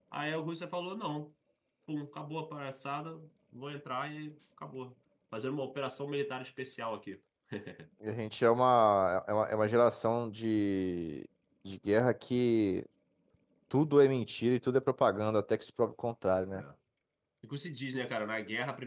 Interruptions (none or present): none